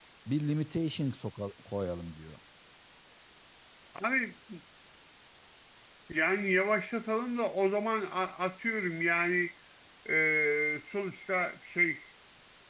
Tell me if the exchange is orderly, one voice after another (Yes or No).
Yes